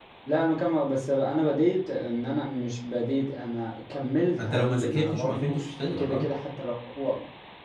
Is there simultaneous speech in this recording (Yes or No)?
Yes